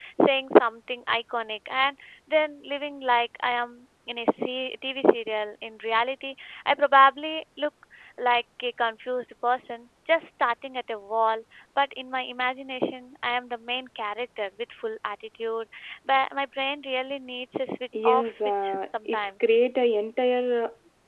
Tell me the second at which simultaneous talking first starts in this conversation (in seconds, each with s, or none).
17.9 s